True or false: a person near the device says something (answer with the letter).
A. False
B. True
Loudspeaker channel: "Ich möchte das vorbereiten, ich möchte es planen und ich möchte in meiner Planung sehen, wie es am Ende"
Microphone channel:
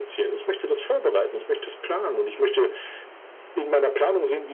A